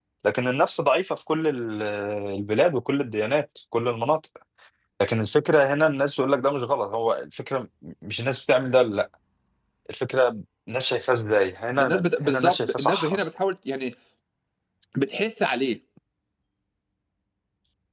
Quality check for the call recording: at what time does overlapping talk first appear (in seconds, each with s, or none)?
11.8 s